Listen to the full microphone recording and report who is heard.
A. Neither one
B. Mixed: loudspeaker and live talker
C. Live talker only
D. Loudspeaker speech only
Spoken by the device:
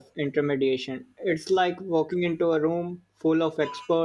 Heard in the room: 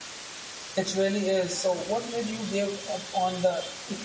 C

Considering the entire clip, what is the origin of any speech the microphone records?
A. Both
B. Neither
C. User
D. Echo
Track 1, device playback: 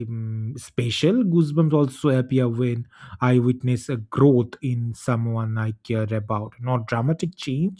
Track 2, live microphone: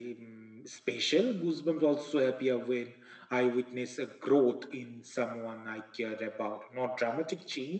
D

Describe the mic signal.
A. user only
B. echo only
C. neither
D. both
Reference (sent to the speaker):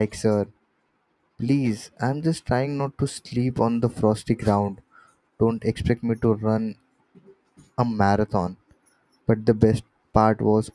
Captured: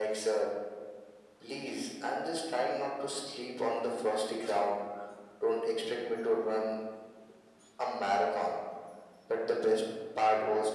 B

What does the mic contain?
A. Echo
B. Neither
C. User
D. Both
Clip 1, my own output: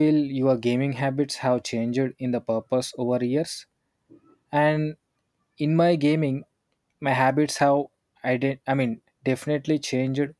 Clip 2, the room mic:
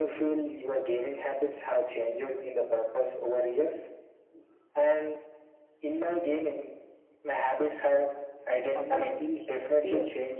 D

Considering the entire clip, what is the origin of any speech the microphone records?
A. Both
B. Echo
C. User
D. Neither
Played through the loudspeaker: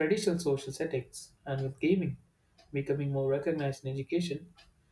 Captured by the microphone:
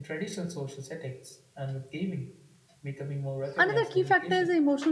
A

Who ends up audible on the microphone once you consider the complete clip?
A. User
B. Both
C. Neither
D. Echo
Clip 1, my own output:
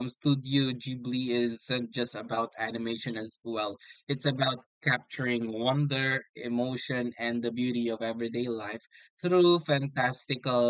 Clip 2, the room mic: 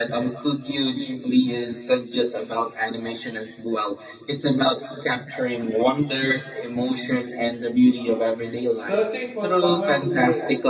B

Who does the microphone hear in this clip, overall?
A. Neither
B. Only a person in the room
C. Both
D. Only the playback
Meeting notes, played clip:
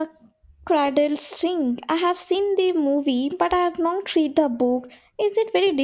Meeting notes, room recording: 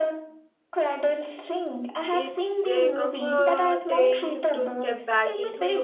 C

